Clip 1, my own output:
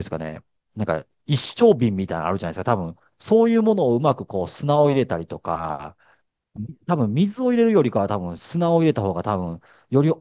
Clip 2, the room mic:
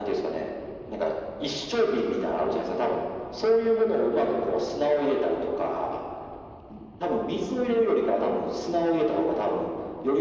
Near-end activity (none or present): none